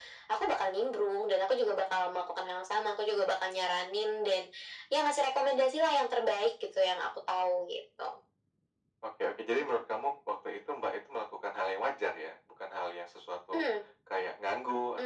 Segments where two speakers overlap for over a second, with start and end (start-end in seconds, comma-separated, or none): none